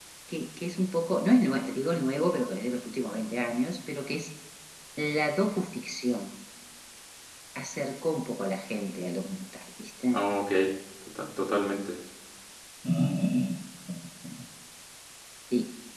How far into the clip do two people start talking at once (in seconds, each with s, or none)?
none